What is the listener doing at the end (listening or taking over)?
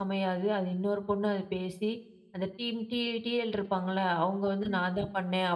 listening